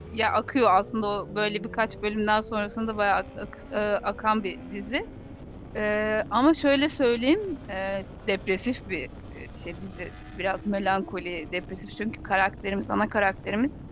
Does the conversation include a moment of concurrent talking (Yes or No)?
No